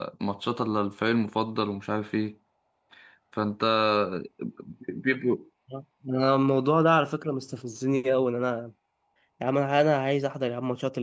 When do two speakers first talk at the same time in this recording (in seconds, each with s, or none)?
none